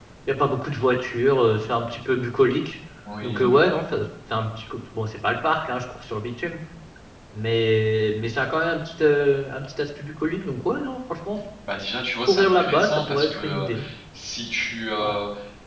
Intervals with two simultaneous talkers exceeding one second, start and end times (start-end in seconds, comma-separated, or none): 12.2-13.7